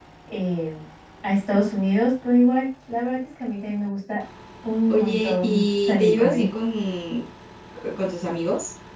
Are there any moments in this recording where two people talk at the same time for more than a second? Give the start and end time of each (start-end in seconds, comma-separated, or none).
4.9-6.5